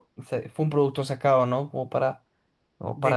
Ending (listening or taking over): taking over